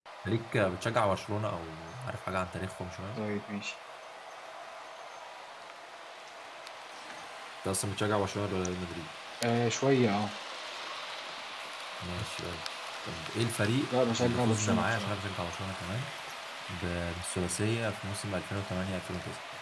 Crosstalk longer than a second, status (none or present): present